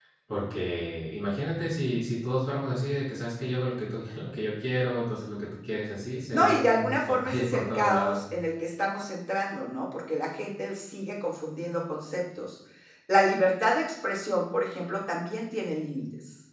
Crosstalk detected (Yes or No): Yes